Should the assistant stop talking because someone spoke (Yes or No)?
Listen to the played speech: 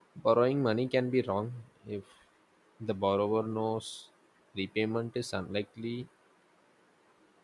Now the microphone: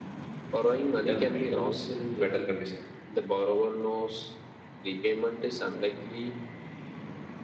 Yes